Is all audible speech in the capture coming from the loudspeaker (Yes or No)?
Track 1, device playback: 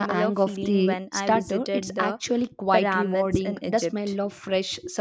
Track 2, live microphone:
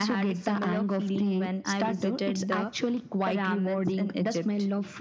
Yes